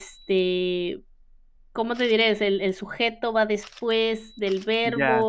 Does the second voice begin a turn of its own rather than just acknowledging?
Yes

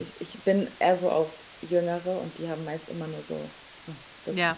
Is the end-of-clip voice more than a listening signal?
No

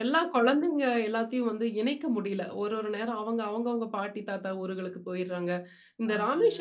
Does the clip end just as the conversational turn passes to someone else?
No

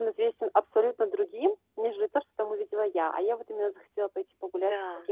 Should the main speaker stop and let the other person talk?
No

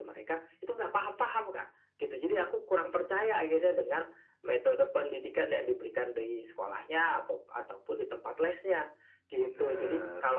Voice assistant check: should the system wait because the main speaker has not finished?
Yes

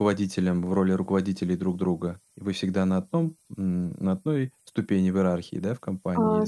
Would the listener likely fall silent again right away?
No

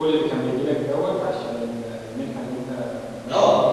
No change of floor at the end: No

